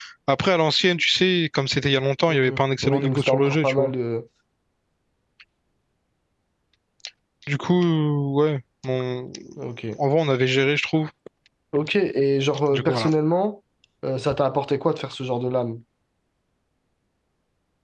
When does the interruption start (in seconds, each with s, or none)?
2.3 s